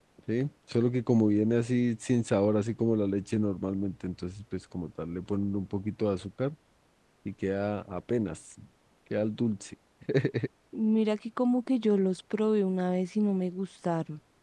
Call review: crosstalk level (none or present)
none